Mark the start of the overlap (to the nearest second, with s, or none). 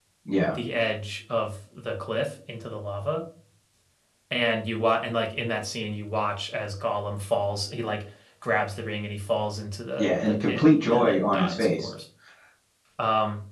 10 s